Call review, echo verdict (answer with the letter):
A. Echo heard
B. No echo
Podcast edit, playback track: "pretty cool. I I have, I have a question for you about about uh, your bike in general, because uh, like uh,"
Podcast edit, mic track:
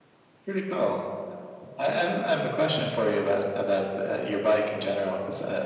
A